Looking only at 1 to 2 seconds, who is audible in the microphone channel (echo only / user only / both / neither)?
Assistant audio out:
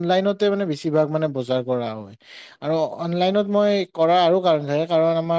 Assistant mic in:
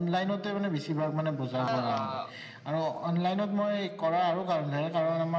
both